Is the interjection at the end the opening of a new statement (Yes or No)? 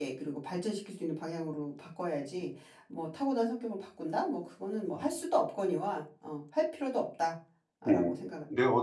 Yes